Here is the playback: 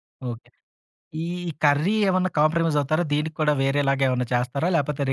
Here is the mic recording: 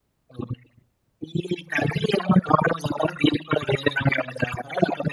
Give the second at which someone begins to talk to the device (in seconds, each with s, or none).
none